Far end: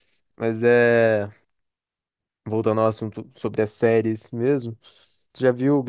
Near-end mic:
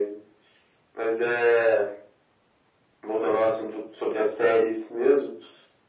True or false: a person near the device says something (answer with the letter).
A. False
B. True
A